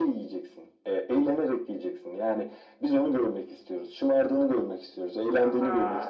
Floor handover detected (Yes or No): Yes